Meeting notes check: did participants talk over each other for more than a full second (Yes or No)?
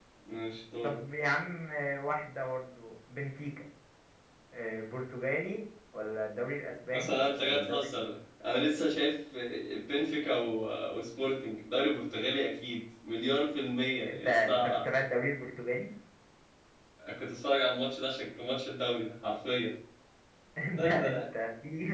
Yes